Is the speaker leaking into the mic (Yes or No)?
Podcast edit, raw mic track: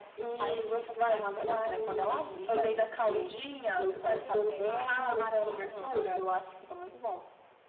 Yes